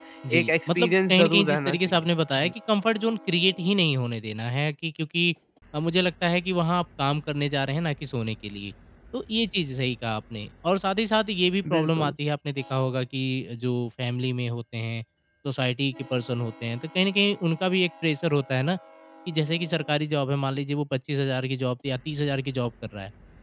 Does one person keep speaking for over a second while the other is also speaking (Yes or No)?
Yes